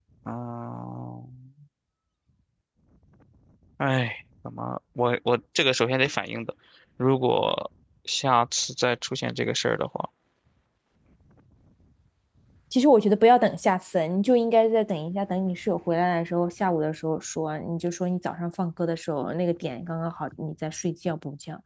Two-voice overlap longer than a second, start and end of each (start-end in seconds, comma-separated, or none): none